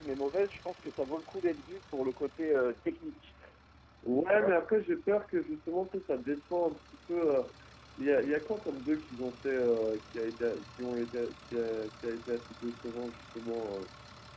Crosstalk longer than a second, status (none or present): none